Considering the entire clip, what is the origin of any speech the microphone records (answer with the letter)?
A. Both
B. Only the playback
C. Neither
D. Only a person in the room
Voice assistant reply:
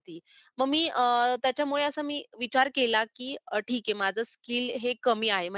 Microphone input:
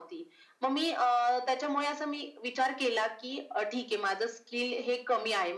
B